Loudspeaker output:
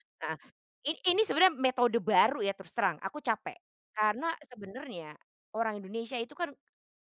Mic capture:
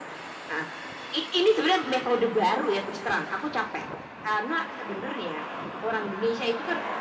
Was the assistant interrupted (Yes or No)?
No